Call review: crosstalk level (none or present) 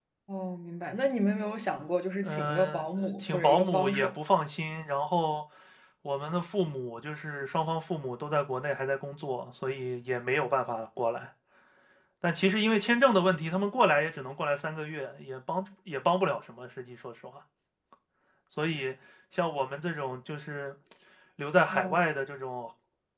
present